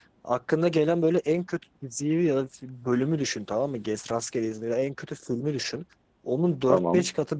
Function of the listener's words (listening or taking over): listening